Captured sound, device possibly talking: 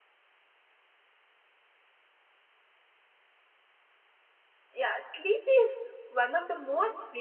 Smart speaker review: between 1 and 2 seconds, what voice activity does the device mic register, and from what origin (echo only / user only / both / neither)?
neither